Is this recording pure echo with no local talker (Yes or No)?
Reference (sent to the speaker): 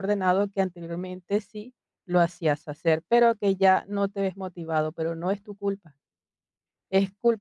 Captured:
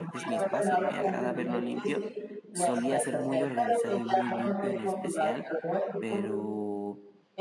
No